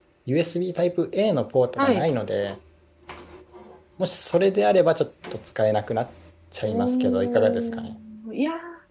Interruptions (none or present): present